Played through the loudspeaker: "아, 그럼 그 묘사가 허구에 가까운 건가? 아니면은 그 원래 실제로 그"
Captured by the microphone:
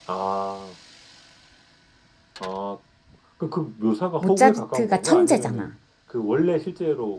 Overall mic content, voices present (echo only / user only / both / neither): both